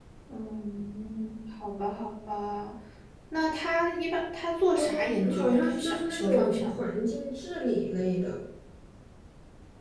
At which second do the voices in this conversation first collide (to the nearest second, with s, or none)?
5 s